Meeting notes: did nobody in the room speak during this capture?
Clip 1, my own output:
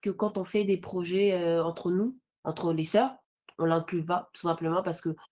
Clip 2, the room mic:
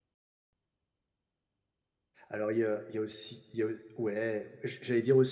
No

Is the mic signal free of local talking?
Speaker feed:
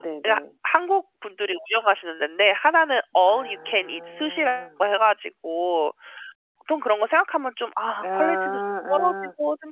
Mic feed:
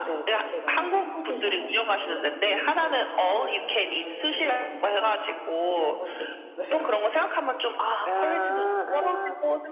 No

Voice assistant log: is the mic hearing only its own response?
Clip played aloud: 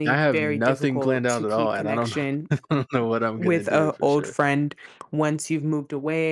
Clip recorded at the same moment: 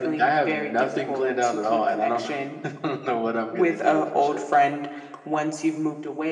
Yes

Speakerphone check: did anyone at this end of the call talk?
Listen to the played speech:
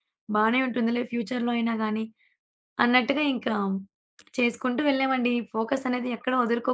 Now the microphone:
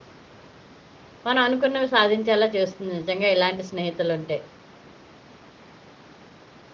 Yes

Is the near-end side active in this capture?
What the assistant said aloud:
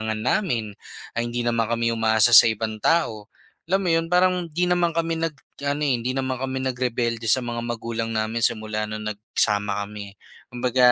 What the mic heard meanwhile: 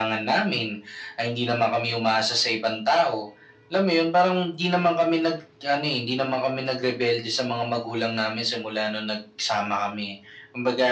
No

